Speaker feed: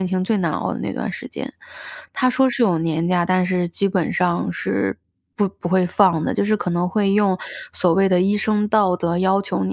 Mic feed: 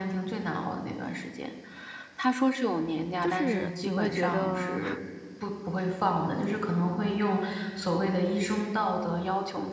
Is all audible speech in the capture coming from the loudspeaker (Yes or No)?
No